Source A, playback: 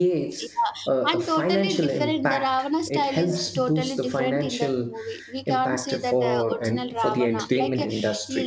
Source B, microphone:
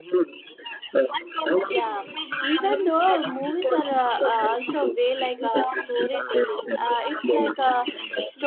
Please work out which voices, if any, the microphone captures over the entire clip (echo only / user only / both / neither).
both